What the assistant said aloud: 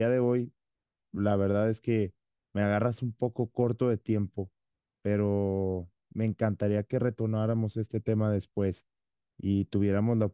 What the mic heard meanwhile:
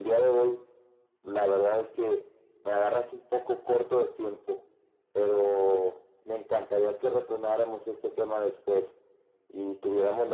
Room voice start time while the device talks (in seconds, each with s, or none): none